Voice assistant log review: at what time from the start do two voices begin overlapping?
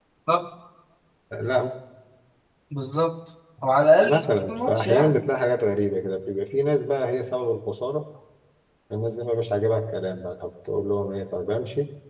4 s

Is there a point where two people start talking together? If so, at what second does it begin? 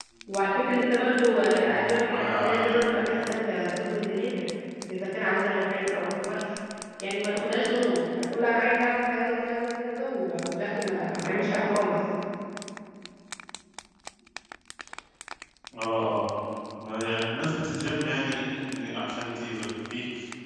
2 s

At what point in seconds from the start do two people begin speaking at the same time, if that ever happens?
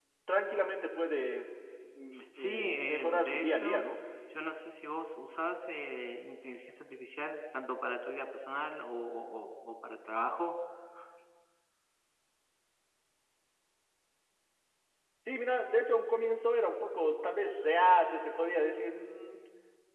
2 s

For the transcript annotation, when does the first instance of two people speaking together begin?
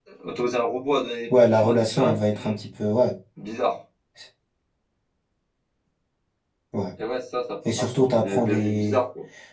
1 s

